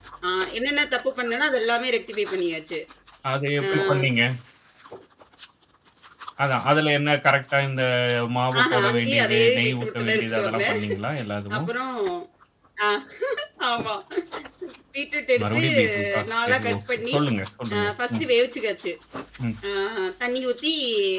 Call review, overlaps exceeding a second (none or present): present